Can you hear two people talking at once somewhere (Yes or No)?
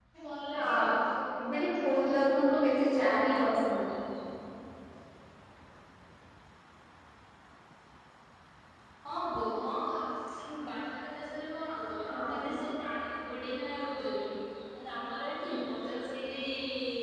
Yes